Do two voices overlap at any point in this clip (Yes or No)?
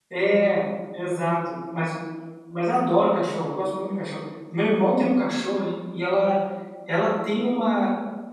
No